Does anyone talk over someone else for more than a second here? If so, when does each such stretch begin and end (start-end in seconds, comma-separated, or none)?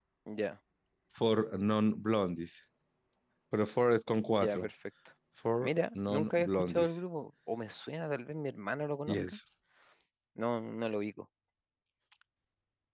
5.6-6.9